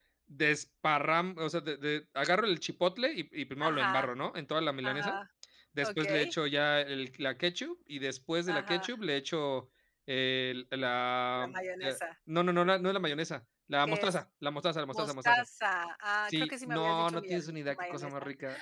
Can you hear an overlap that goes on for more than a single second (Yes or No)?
Yes